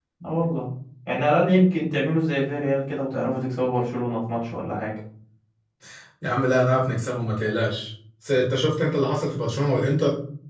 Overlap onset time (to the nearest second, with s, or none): none